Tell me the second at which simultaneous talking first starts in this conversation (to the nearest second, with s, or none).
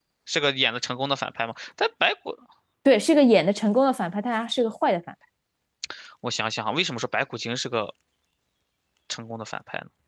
none